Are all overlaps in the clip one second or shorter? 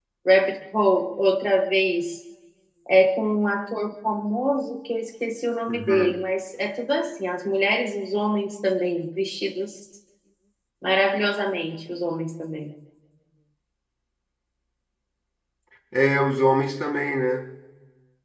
Yes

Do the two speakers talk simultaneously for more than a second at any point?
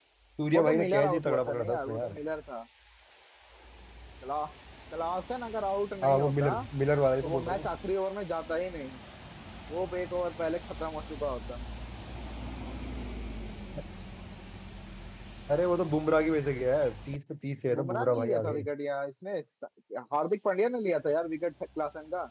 Yes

